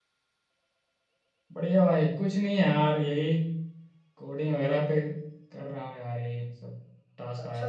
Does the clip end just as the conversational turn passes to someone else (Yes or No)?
Yes